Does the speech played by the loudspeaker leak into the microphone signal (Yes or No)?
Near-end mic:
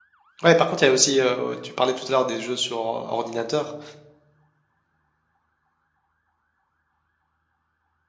No